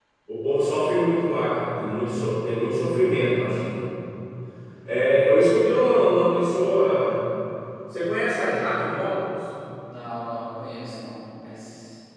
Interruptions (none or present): none